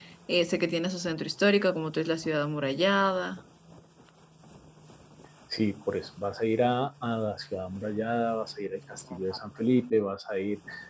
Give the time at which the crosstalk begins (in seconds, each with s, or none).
none